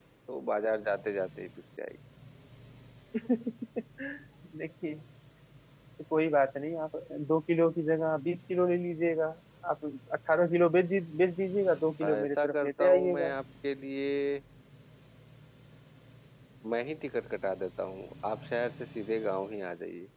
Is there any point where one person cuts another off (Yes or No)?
Yes